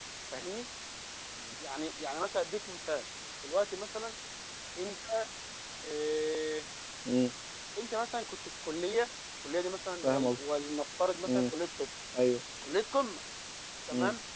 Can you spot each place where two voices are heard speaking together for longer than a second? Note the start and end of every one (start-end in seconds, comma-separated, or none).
none